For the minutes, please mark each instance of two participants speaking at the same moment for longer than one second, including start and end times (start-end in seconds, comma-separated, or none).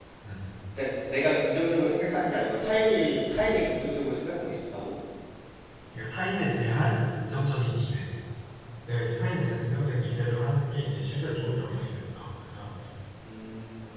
none